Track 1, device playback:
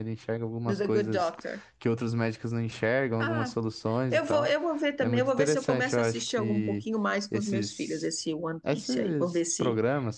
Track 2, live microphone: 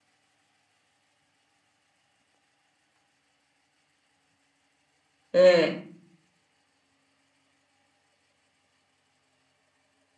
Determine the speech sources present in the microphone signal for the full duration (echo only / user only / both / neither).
user only